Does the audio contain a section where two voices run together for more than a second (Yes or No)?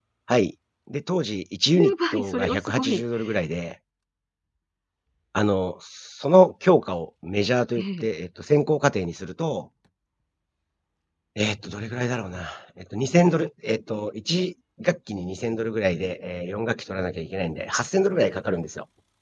Yes